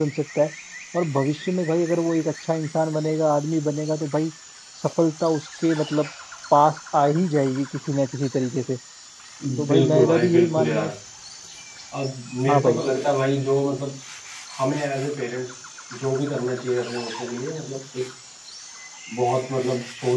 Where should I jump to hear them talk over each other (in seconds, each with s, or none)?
9.7 s